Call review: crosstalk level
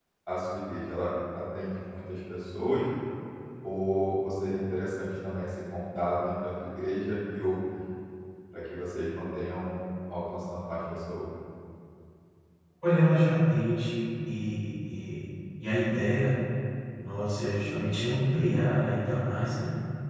none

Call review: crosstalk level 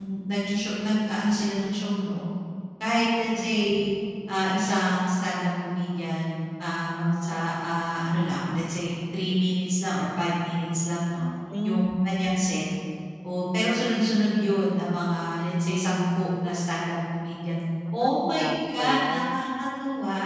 present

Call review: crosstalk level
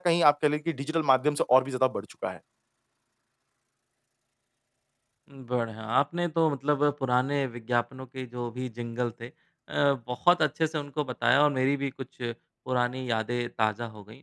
none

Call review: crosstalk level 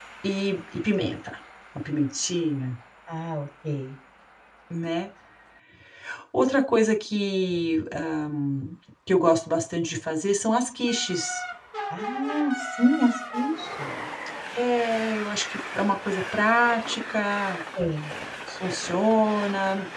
none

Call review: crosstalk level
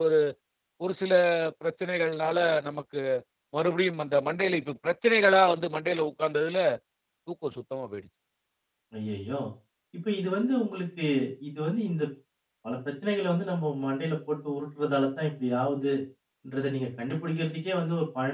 none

